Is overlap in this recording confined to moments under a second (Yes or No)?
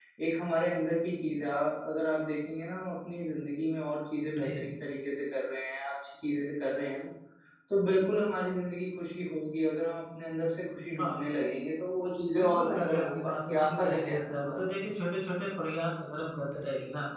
No